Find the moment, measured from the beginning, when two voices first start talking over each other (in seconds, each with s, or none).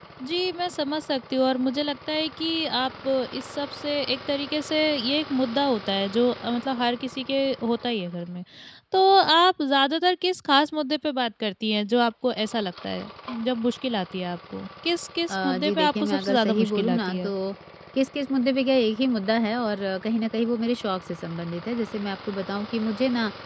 15.3 s